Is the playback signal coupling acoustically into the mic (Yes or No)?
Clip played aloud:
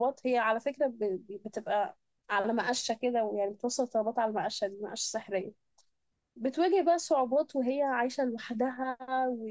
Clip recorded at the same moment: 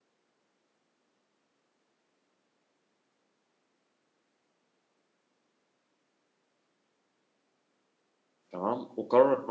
No